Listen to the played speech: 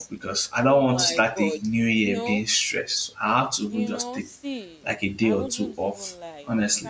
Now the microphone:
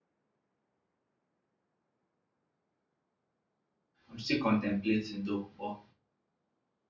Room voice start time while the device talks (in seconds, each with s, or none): 4.1 s